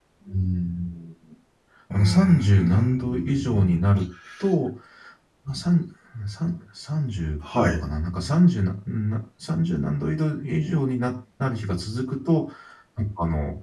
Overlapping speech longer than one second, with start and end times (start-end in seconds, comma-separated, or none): 1.9-3.8